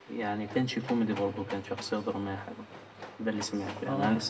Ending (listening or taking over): taking over